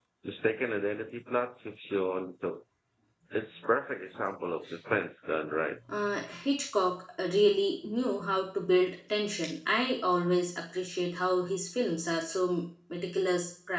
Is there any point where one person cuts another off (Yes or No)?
No